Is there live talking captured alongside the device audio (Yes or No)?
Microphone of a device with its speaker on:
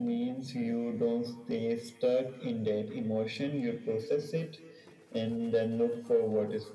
No